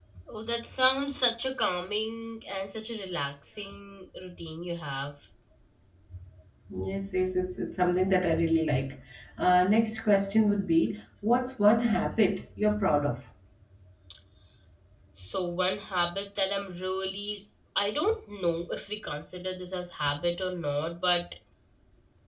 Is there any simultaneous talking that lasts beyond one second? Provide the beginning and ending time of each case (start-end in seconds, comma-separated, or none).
none